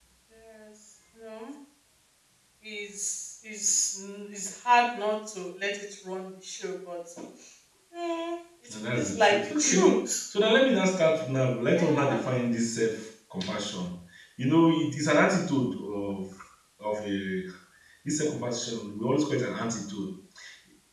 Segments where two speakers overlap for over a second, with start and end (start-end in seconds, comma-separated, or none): 8.7-10.0